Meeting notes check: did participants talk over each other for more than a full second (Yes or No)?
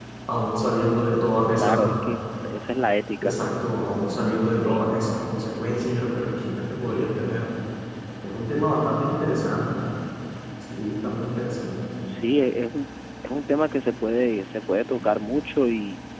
No